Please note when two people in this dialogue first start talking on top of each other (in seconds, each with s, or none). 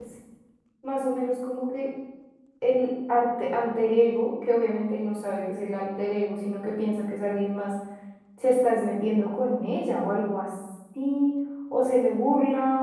none